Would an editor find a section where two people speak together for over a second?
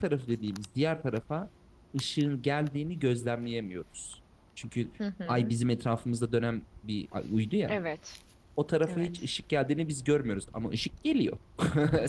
No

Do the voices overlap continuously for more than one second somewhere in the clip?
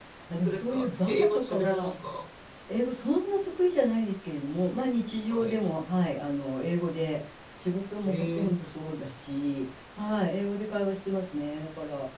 Yes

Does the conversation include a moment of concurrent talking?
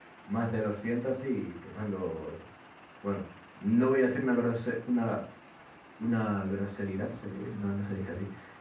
No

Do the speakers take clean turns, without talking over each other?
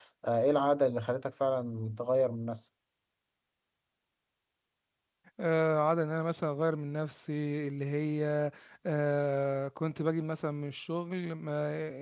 Yes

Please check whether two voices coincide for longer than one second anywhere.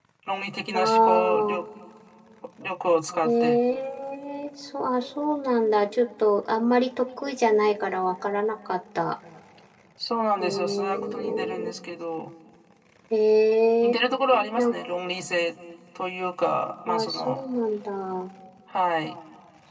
Yes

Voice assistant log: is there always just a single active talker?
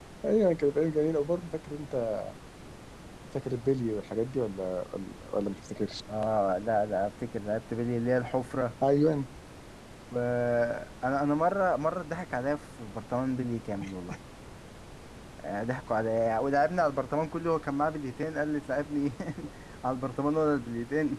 Yes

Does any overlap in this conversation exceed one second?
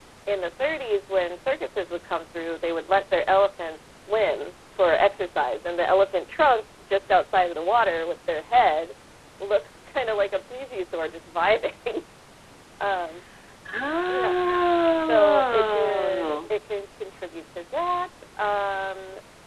Yes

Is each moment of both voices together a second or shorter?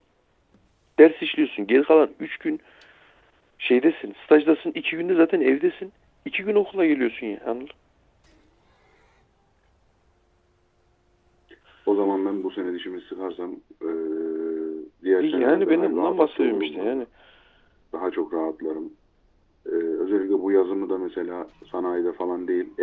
No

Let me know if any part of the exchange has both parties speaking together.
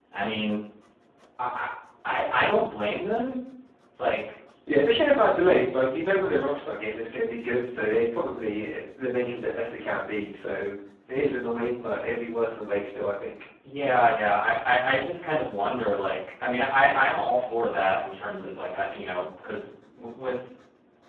No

